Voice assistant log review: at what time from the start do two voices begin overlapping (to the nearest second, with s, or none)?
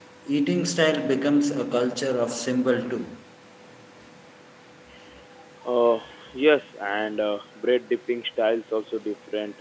none